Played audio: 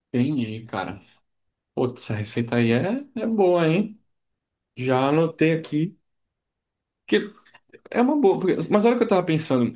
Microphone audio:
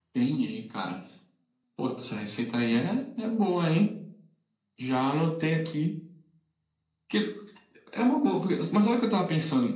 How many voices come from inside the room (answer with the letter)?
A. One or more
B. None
B